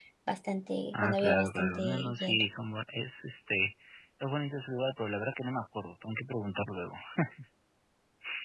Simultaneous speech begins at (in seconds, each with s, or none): 0.9 s